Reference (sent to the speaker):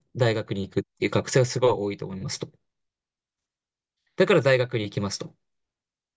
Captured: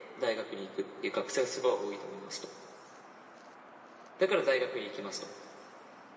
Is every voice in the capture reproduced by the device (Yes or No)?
Yes